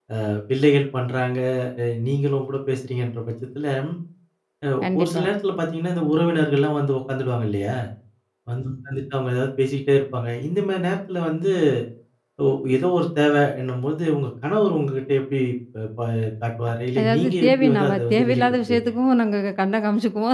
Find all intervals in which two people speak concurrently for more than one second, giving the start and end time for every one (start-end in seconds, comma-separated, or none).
17.0-18.9